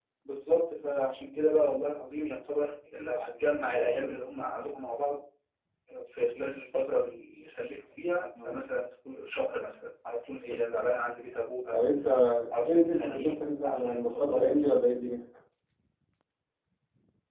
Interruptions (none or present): present